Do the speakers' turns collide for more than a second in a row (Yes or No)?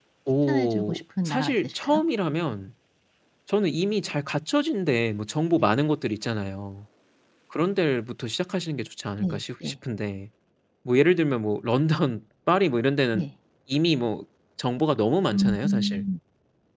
Yes